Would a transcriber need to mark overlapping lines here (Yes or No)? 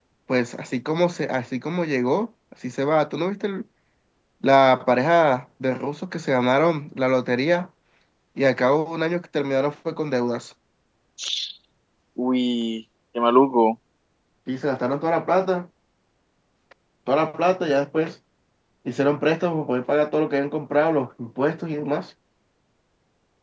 No